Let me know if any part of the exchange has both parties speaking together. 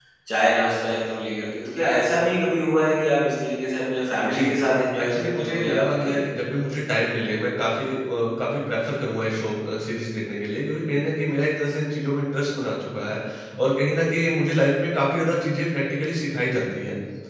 Yes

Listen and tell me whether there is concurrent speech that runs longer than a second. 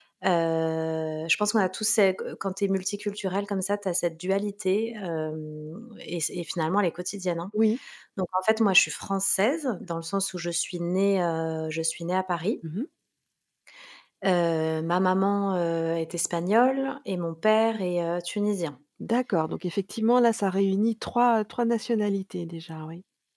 No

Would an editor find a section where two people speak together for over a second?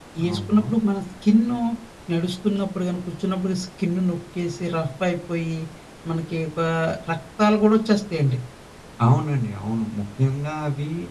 No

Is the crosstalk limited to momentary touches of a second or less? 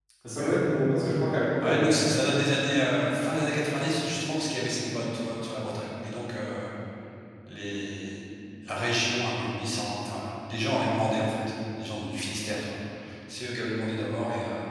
Yes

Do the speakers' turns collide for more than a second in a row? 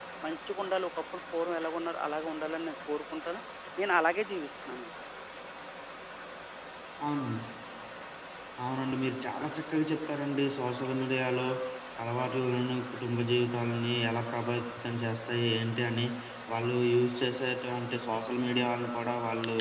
No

